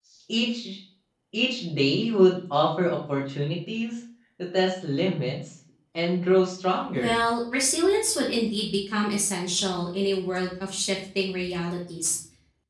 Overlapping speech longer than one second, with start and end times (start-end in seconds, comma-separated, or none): none